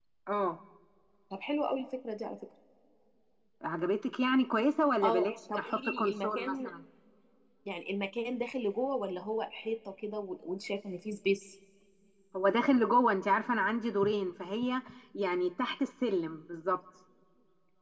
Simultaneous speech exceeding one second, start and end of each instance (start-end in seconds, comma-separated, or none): 5.0-6.7